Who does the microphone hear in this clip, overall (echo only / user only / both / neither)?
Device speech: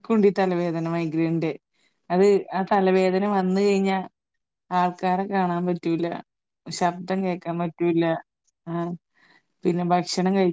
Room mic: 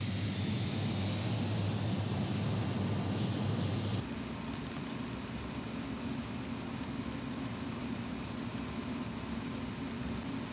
neither